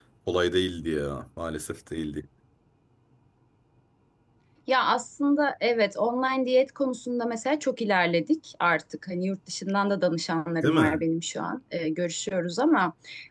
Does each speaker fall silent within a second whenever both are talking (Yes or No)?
Yes